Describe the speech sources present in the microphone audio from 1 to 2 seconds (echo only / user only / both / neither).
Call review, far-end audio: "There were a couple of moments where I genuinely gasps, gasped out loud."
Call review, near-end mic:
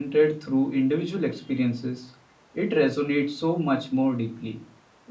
user only